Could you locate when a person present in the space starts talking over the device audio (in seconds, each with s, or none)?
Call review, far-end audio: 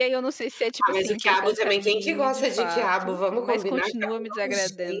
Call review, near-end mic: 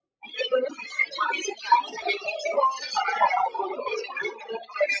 none